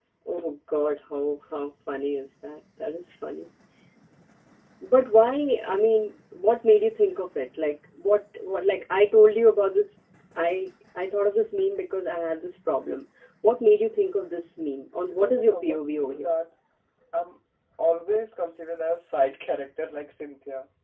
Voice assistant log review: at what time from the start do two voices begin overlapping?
15.0 s

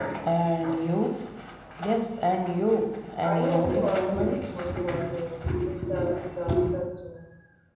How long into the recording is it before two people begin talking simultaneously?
3.2 s

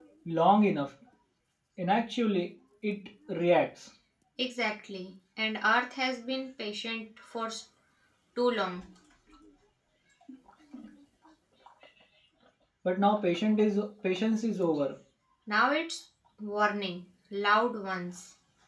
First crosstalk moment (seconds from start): none

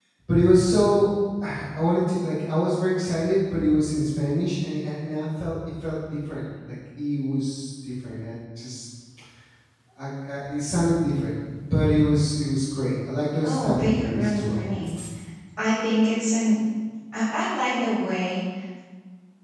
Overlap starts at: 13.4 s

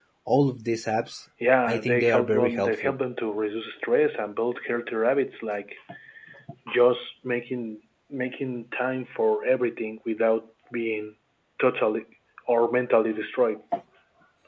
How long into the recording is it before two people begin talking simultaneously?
1.7 s

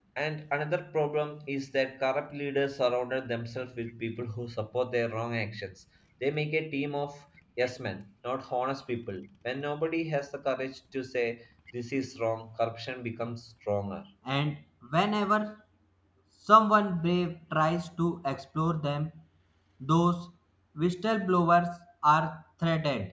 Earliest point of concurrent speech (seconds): none

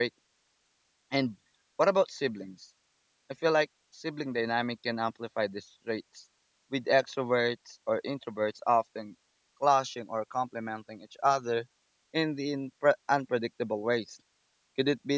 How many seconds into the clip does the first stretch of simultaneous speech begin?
none

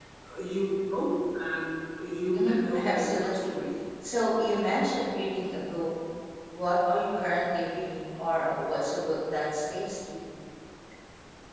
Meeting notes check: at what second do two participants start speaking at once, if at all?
2.3 s

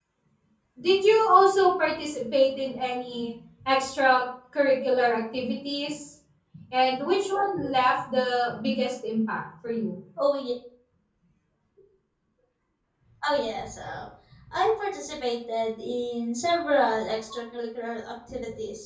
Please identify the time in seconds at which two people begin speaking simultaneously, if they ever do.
none

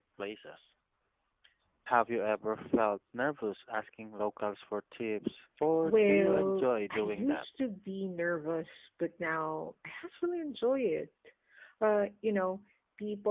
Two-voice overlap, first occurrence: 5.8 s

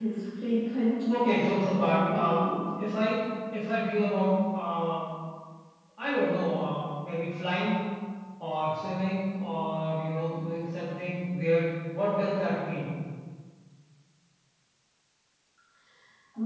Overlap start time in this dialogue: 1.1 s

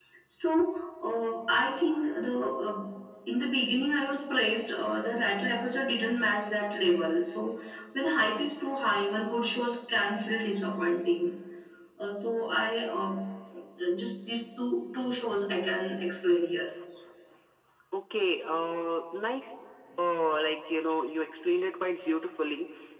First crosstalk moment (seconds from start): none

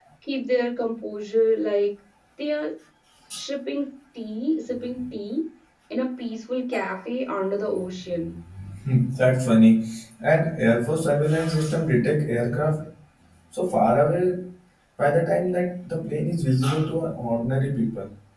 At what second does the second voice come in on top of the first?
none

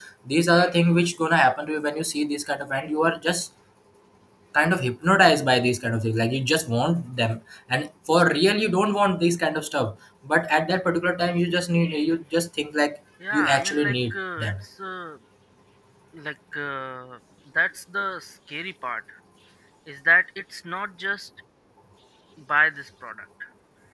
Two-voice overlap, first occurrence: 13.2 s

